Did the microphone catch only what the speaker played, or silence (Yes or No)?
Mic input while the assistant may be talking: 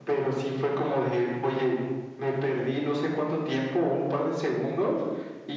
Yes